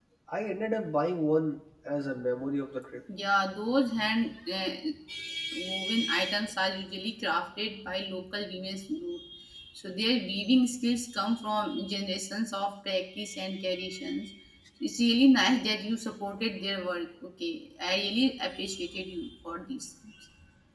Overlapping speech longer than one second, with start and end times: none

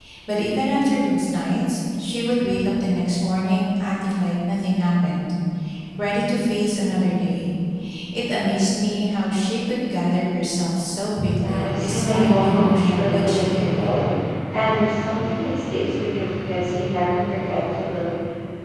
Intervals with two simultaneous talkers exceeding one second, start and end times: 11.4-13.9

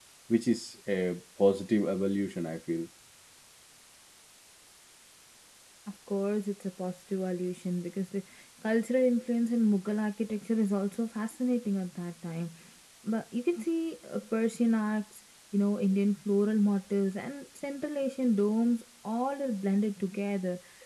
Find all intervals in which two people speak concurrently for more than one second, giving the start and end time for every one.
none

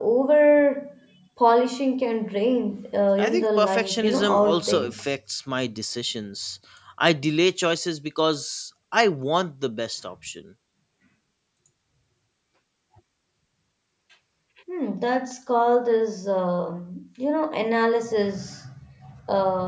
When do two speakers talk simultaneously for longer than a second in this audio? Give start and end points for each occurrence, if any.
3.2-5.0

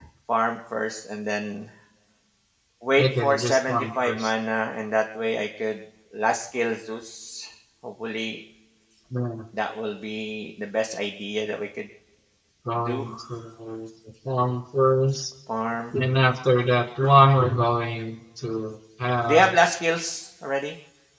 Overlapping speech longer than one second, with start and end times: 3.0-4.3

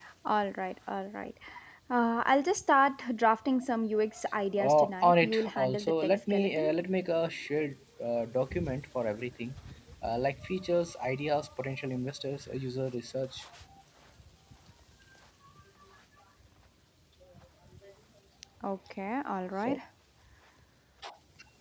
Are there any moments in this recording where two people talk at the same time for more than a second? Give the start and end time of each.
4.6-6.7

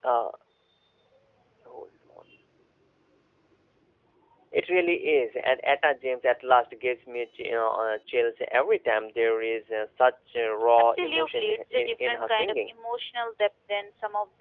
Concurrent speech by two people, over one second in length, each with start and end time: 10.8-12.7

